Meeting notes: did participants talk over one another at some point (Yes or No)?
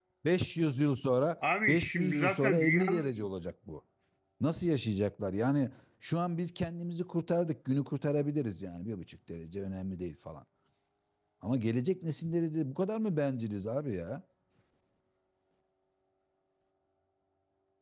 Yes